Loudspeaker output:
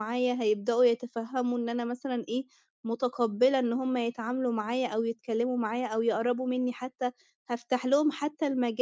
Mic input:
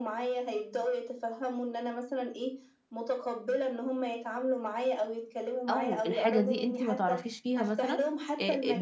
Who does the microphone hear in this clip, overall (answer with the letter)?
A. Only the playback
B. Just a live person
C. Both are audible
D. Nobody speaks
C